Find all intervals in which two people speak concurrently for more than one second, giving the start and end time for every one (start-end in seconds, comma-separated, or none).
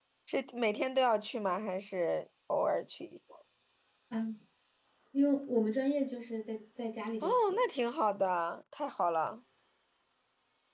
none